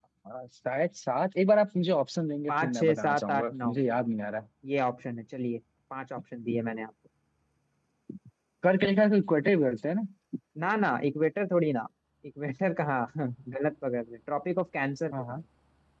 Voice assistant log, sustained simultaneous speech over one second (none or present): present